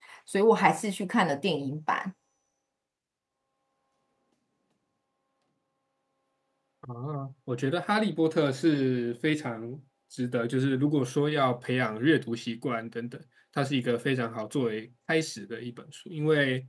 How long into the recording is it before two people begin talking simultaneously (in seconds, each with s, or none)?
none